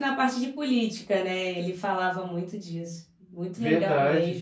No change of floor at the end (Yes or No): No